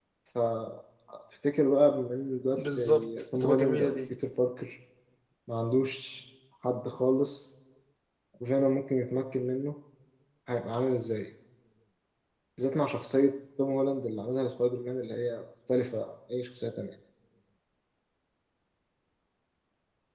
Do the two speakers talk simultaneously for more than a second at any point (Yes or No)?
Yes